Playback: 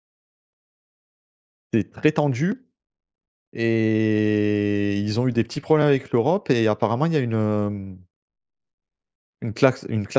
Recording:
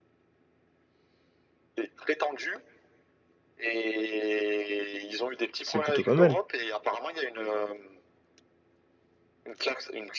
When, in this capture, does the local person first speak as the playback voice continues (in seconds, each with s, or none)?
5.6 s